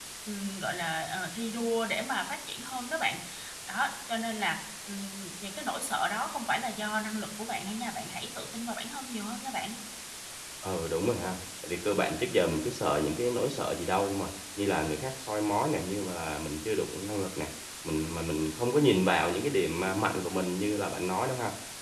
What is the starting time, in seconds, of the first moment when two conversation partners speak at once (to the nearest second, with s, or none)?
none